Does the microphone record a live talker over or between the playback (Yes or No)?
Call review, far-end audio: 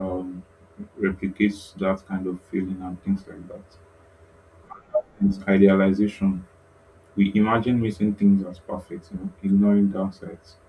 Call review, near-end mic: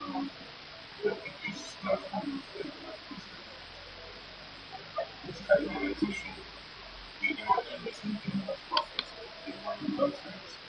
No